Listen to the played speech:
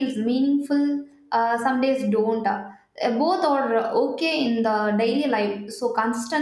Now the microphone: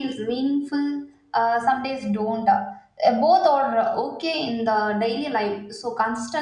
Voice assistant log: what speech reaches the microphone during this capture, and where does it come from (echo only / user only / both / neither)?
echo only